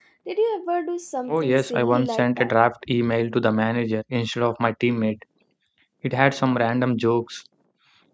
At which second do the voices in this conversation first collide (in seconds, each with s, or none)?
1.3 s